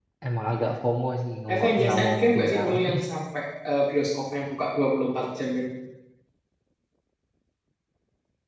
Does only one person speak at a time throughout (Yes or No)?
No